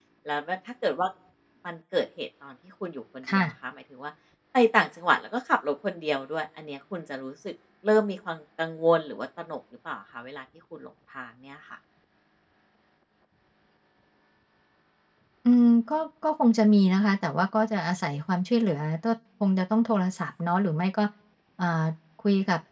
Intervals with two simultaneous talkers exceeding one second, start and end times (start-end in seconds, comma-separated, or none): none